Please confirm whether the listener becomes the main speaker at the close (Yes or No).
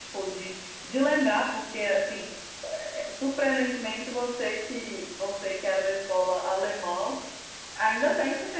No